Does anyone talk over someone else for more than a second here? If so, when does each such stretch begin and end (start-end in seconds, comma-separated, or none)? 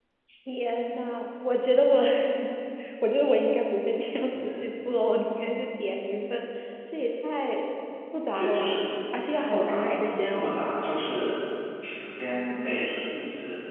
9.3-10.6